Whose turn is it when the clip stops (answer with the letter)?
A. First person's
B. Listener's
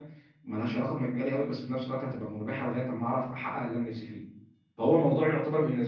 A